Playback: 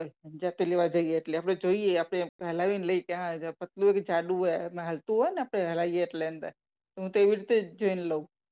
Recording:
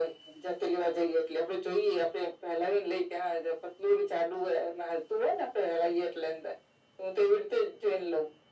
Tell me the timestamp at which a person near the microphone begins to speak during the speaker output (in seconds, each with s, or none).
none